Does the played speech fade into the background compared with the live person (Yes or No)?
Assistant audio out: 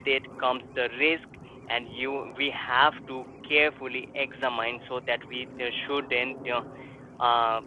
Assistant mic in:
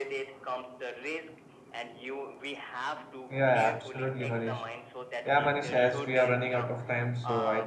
Yes